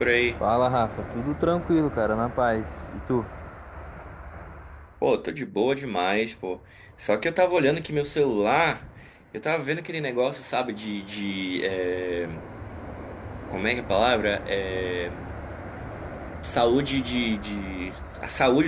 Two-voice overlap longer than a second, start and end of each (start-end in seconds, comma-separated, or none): none